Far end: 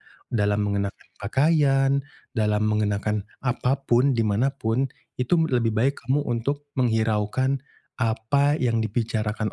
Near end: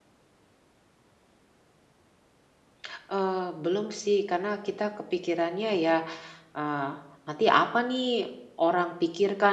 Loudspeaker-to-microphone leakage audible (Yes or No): No